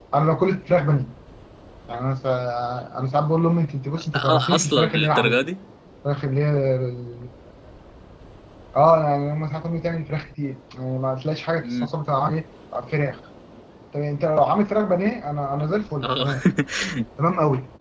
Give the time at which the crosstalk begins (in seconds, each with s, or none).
4.0 s